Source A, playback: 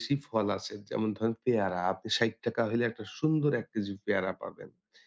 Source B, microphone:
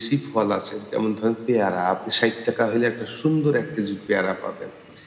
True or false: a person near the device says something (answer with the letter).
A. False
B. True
A